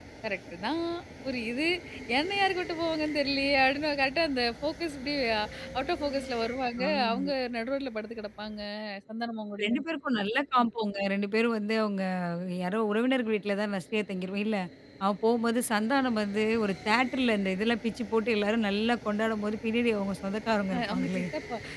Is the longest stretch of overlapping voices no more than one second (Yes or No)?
Yes